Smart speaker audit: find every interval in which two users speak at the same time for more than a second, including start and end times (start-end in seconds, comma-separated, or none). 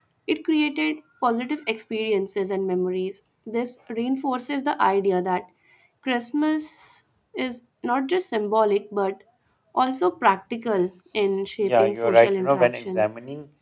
11.7-13.0